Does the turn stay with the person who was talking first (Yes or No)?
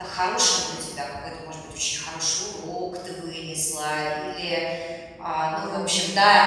Yes